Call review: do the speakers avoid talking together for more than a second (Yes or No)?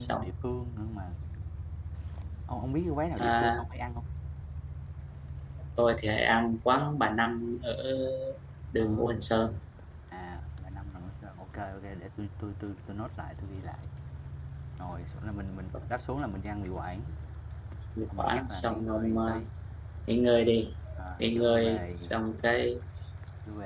No